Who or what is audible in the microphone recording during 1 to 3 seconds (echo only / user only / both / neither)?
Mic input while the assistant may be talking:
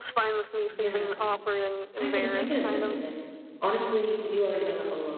both